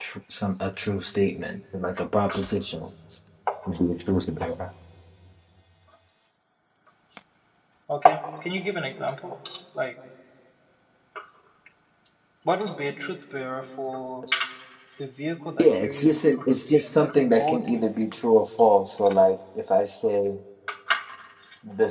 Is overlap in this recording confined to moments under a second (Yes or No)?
No